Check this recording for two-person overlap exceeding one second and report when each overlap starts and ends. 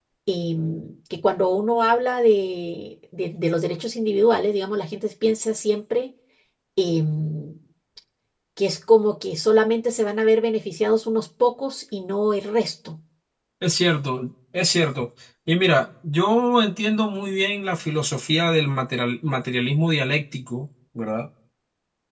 none

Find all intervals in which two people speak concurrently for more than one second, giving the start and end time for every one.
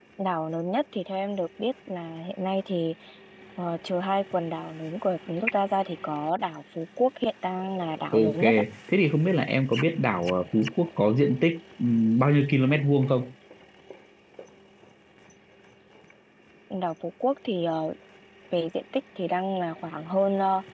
none

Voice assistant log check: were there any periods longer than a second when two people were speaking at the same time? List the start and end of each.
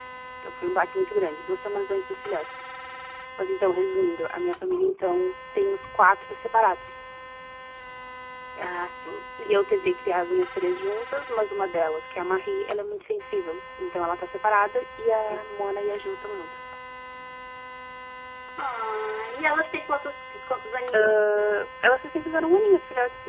none

